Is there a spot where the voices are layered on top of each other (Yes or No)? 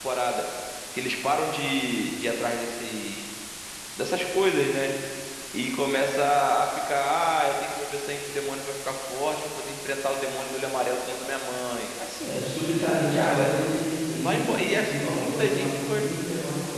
Yes